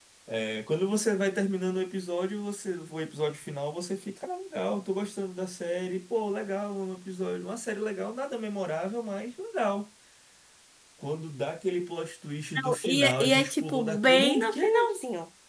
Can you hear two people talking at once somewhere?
Yes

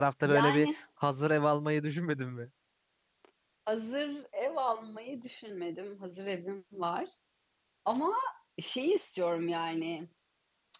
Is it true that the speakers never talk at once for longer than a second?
Yes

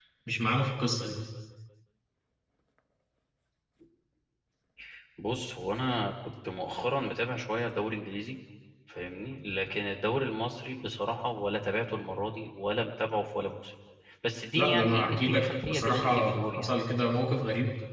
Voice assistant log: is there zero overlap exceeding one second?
No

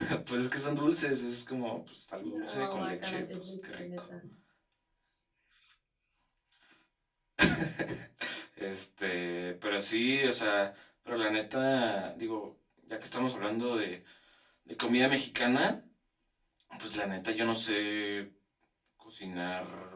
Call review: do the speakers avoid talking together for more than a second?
No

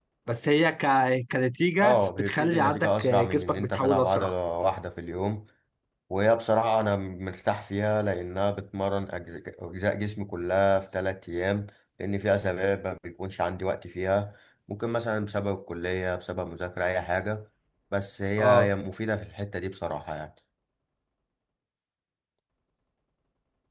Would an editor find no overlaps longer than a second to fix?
No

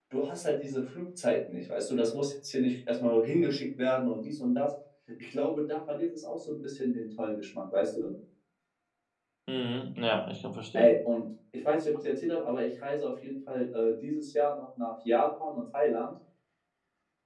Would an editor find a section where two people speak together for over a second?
No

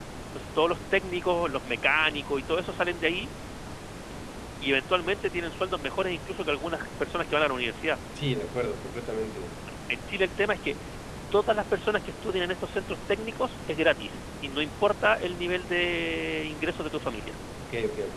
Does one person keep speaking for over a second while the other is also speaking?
No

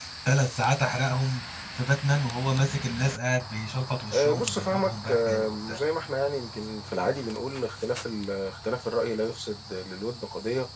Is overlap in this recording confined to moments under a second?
No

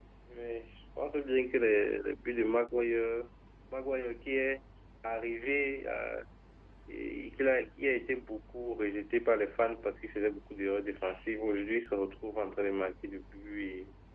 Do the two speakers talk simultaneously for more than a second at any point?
No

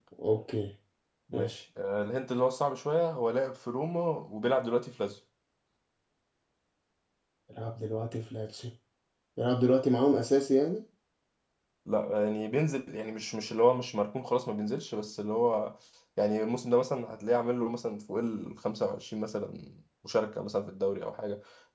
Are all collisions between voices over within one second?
Yes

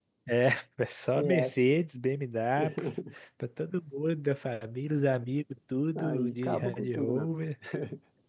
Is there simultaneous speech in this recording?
Yes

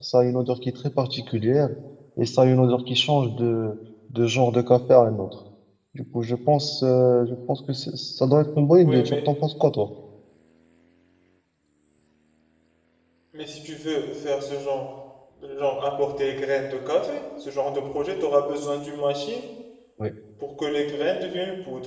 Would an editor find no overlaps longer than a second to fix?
Yes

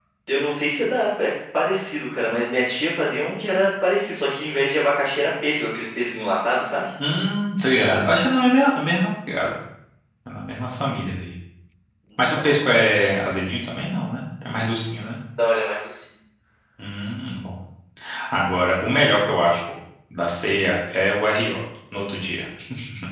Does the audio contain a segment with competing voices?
No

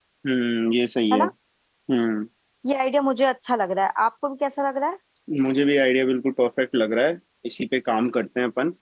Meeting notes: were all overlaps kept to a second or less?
Yes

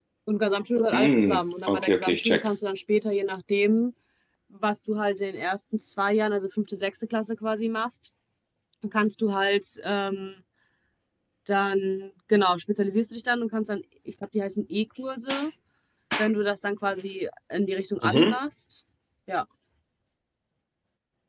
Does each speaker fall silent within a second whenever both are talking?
No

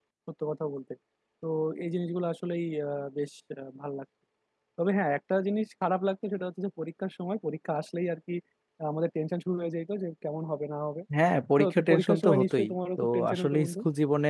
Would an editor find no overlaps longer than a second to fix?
No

